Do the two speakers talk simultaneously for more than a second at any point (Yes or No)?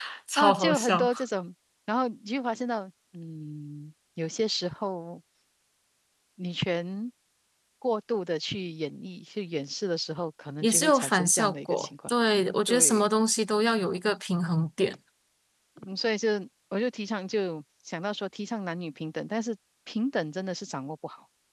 Yes